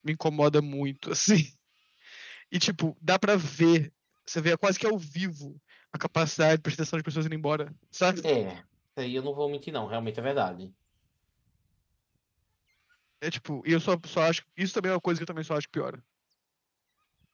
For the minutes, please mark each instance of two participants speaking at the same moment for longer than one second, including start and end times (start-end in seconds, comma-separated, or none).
none